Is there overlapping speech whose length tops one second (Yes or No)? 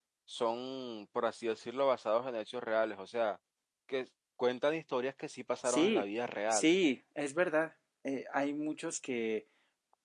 No